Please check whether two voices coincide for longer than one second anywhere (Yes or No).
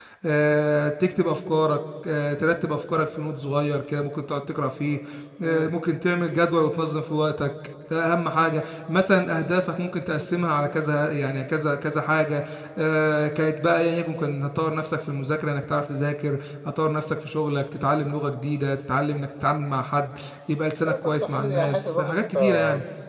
Yes